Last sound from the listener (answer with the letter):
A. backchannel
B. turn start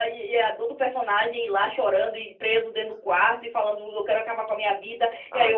A